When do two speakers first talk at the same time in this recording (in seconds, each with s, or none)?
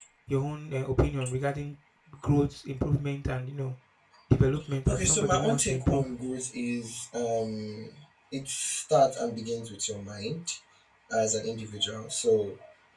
4.9 s